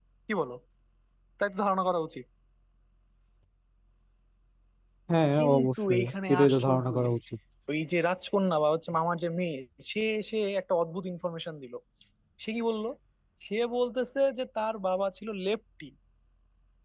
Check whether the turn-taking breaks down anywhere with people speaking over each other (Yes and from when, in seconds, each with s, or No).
Yes, from 5.4 s